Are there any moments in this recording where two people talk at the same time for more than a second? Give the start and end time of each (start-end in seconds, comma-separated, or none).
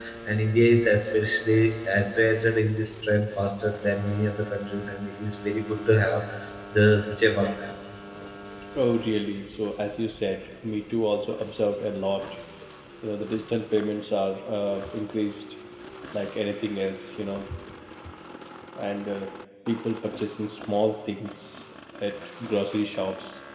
none